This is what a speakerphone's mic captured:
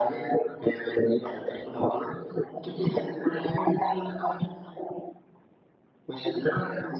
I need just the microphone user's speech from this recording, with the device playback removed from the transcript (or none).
none